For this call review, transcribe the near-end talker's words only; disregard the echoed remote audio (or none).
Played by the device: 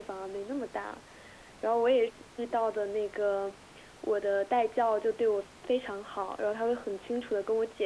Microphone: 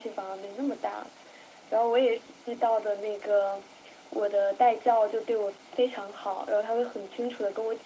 none